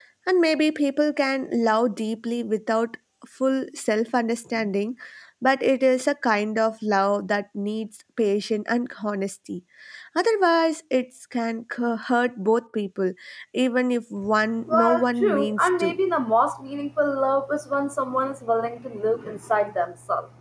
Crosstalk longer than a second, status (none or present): present